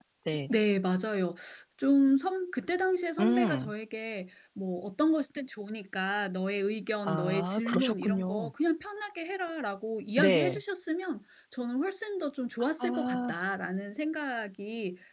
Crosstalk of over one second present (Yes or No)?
Yes